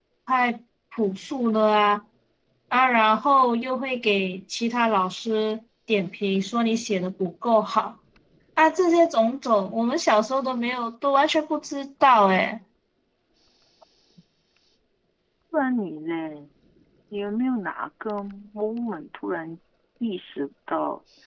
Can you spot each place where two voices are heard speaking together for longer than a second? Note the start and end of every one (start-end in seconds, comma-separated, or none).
none